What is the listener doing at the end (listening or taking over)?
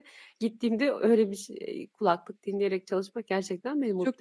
taking over